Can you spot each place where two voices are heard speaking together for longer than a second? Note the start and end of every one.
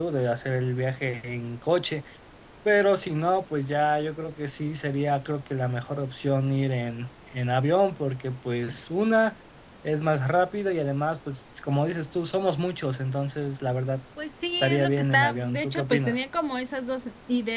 14.6-16.2

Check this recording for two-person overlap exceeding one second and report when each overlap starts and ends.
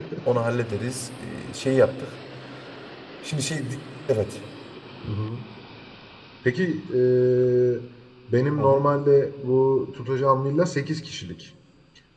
none

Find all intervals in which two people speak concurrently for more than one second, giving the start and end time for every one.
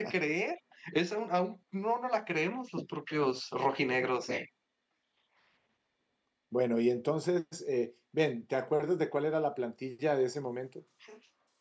none

